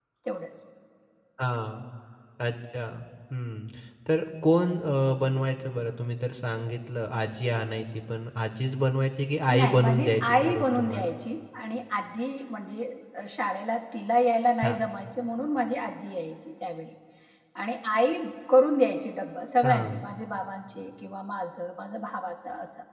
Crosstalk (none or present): present